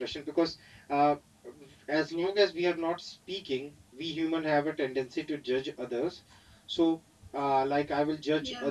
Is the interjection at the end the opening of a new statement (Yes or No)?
No